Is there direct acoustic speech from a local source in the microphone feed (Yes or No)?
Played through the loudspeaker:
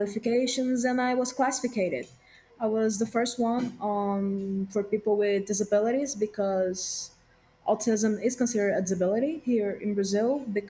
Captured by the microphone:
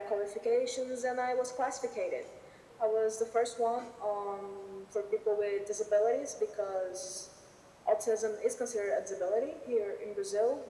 No